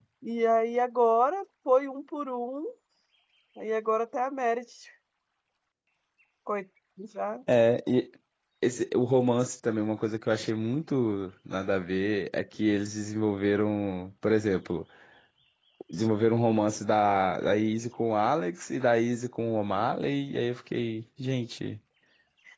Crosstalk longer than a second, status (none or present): none